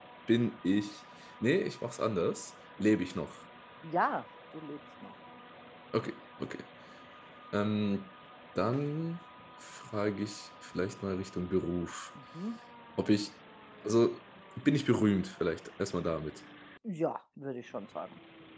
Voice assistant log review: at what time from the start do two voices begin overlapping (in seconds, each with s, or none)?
none